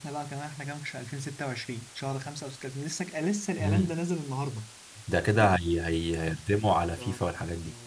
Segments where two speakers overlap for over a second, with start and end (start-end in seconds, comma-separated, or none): none